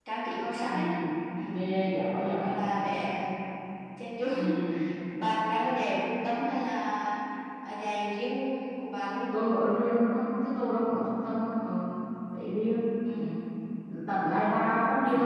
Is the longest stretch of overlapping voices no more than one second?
Yes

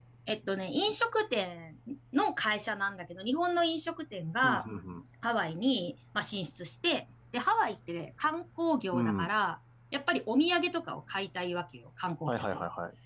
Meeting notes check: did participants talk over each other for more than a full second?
No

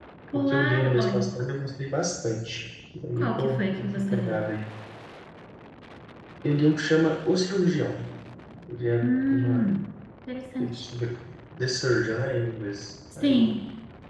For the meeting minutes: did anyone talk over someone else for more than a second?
Yes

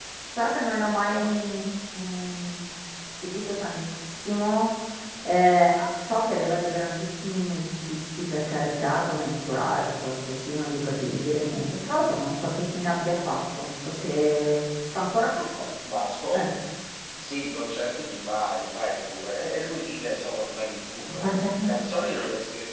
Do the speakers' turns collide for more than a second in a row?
No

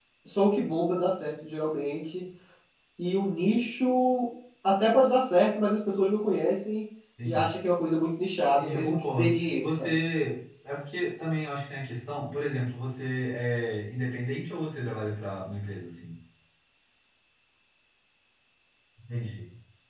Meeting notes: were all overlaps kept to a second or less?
No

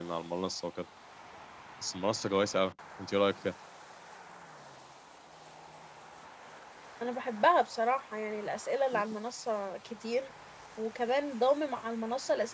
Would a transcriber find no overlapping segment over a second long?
Yes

